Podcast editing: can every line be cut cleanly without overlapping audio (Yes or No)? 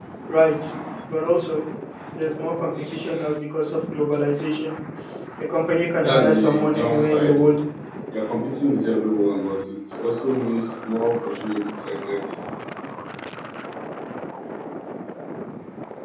No